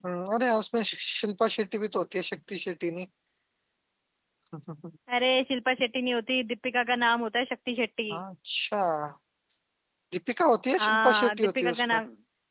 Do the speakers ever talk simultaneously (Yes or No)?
Yes